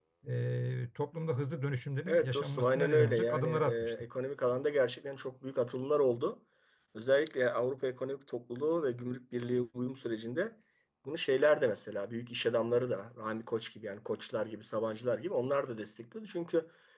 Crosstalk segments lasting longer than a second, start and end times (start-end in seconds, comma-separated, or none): 2.1-3.9